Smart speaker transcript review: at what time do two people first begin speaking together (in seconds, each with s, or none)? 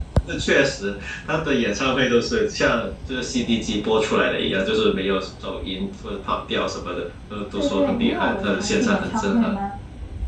7.5 s